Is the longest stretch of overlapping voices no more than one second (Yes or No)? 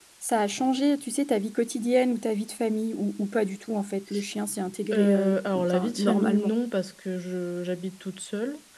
No